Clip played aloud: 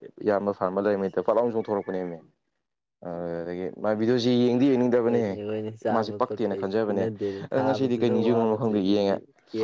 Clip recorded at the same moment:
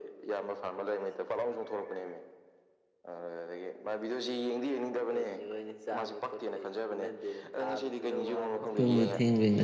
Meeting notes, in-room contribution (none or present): present